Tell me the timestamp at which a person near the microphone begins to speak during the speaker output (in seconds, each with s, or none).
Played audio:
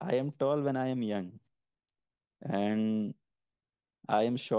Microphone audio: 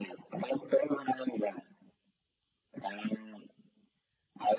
none